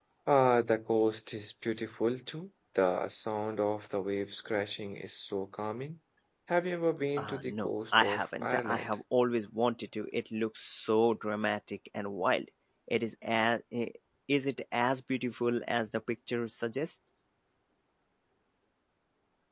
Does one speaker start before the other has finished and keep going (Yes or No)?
Yes